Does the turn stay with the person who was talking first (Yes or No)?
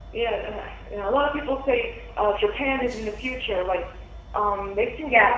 Yes